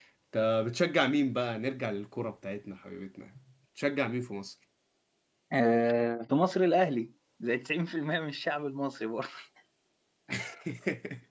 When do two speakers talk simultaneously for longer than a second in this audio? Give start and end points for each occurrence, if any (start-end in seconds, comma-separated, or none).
none